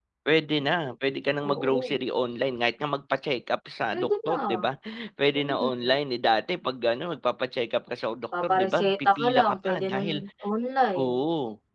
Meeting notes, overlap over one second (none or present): present